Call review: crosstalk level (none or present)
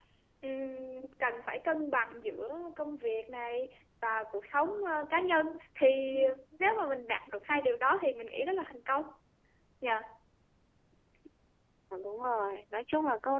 none